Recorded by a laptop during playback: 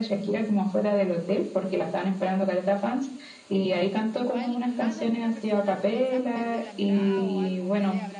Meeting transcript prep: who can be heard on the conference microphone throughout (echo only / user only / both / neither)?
both